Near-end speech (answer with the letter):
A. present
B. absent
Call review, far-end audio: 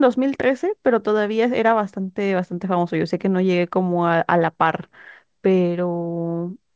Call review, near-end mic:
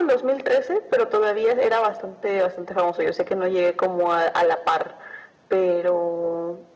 B